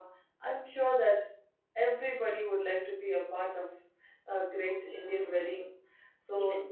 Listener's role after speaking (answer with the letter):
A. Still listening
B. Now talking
A